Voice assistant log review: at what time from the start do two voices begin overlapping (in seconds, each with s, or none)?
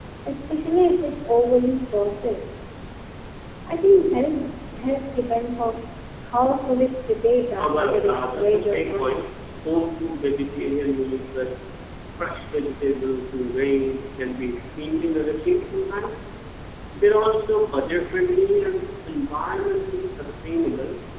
7.6 s